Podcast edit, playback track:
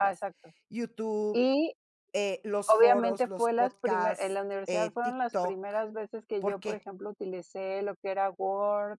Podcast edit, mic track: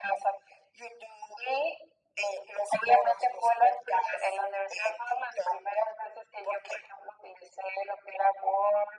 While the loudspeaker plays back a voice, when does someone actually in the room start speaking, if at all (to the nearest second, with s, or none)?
none